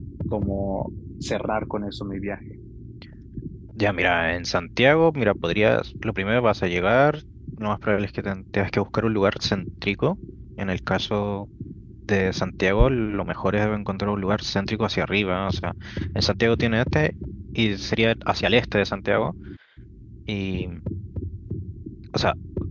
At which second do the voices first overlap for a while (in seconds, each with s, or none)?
none